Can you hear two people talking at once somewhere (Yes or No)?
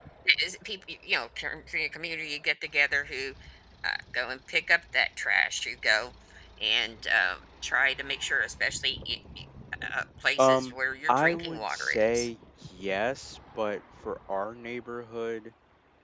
Yes